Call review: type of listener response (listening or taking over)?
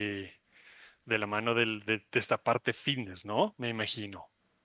taking over